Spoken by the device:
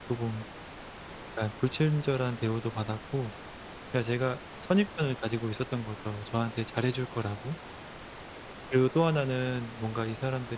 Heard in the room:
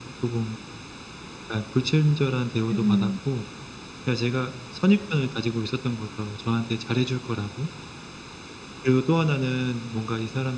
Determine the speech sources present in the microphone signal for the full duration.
both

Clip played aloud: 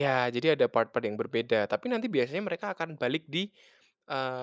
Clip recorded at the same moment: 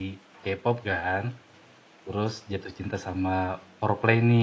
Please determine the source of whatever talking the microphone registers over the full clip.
user only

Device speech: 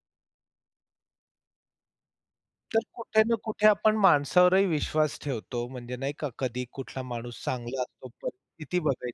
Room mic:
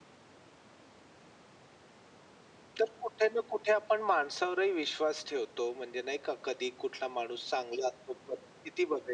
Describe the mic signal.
echo only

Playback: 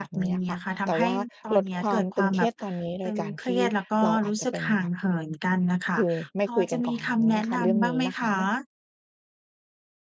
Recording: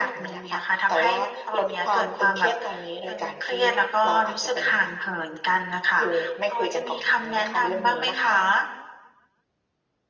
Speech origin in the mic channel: echo only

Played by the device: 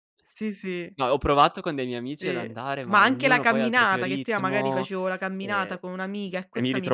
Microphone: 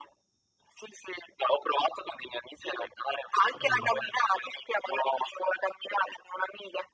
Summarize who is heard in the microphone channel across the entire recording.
both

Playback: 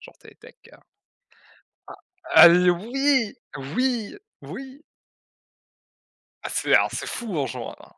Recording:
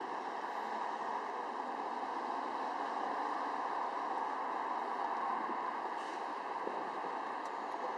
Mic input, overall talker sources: neither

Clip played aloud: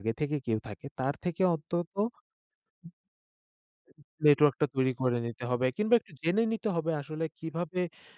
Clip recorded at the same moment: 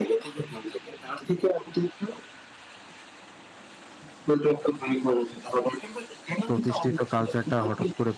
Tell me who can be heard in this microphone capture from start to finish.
both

